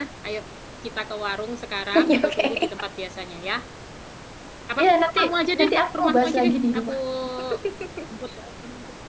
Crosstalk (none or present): present